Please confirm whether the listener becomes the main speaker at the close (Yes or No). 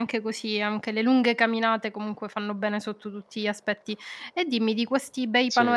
No